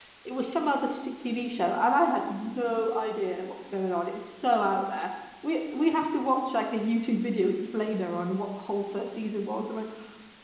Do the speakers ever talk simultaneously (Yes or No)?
No